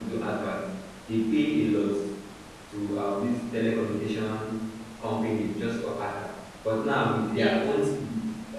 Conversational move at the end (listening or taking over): listening